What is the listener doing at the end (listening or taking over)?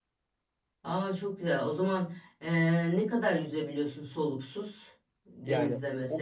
taking over